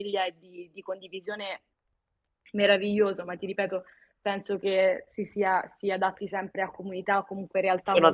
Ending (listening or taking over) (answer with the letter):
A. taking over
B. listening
A